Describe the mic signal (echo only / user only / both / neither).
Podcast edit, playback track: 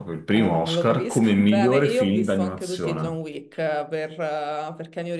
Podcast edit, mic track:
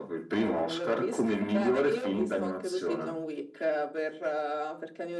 echo only